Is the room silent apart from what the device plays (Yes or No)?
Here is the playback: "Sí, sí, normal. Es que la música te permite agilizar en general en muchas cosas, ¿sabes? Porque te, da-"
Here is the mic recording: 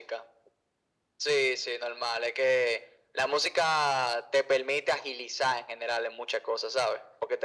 Yes